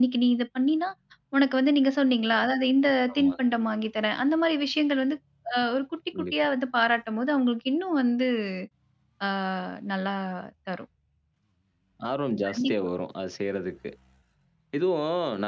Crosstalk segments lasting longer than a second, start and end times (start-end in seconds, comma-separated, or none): none